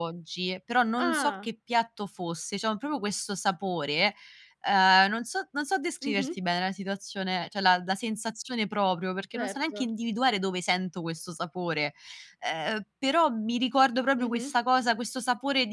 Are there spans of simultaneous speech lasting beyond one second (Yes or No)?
No